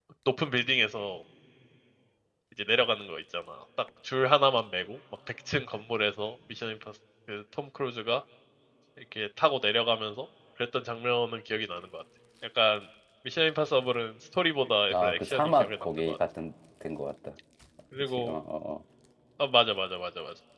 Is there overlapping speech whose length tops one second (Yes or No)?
Yes